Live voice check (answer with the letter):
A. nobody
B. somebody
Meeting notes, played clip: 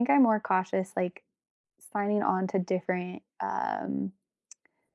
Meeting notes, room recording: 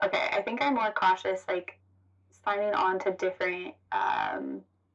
A